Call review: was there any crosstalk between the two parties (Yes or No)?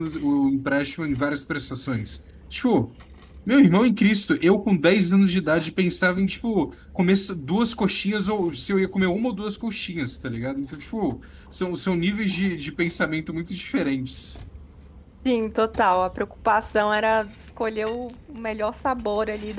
No